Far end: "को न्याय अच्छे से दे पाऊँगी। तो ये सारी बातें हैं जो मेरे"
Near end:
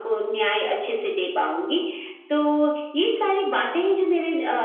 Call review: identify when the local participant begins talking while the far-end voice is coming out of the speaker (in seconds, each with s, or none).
none